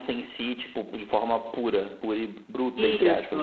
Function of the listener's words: taking over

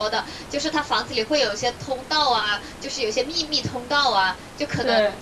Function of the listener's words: listening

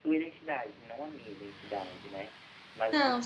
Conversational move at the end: listening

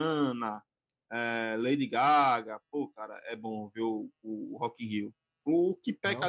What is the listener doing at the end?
listening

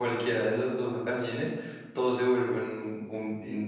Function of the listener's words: taking over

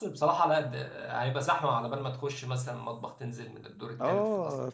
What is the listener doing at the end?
taking over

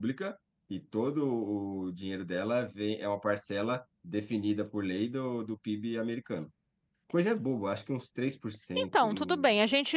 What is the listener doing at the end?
taking over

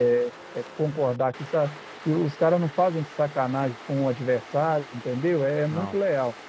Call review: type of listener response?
listening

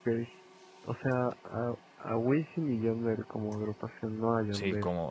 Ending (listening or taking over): taking over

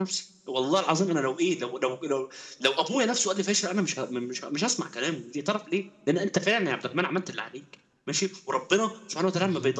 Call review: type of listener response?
listening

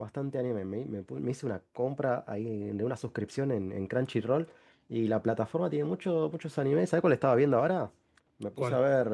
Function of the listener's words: listening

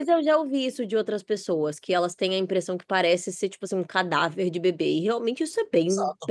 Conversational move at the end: taking over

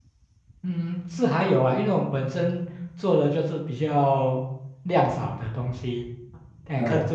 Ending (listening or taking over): listening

